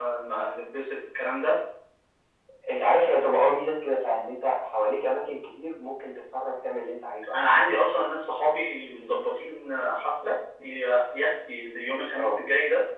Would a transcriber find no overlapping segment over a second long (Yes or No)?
Yes